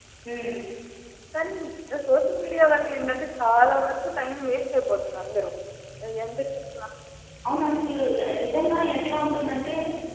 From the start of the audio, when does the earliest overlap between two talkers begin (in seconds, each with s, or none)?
none